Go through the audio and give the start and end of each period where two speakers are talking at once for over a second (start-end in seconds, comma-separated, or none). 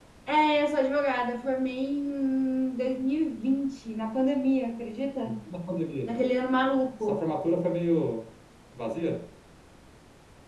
none